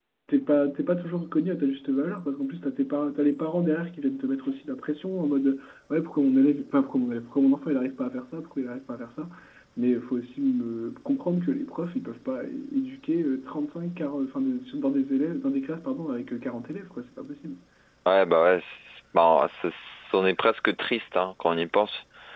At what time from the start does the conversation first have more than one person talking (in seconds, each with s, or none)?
none